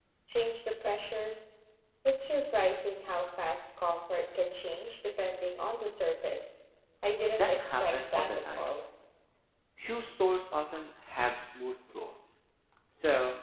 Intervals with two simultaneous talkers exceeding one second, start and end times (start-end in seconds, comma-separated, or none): 7.3-8.7